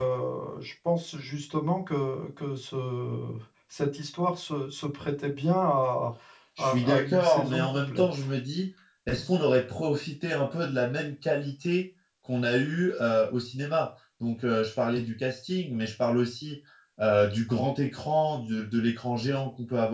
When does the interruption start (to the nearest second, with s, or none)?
7 s